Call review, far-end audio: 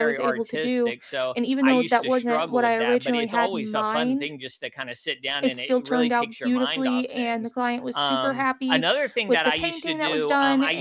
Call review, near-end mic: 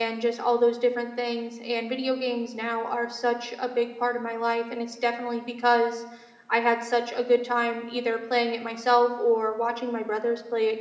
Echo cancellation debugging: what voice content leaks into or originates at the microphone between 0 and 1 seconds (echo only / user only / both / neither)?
user only